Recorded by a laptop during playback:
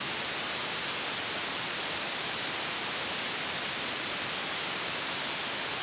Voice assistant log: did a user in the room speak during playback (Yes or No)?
No